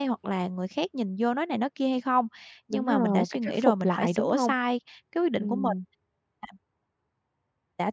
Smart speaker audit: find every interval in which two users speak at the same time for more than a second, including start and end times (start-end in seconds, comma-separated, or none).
2.7-4.5